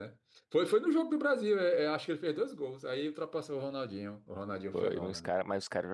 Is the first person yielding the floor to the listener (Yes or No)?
Yes